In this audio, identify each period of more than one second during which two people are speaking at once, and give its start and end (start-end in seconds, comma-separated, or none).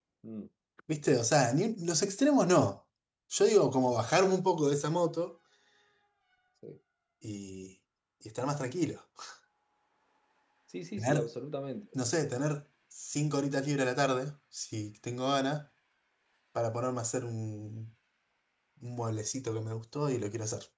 none